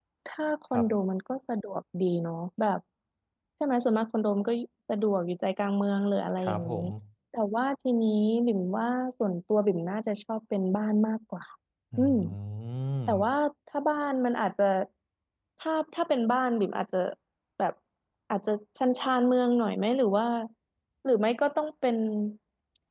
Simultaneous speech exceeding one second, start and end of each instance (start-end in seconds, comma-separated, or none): none